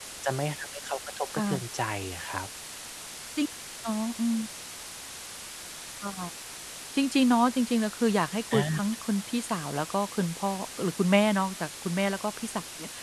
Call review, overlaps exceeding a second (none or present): none